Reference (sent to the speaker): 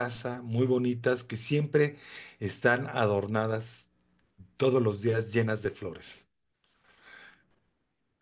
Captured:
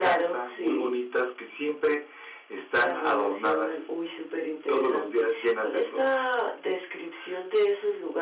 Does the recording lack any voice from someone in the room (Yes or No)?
No